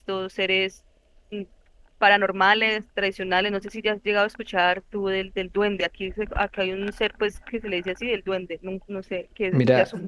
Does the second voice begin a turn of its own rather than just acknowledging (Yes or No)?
Yes